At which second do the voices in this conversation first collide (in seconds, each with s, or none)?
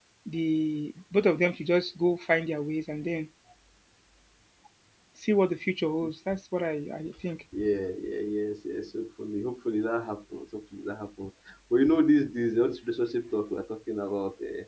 none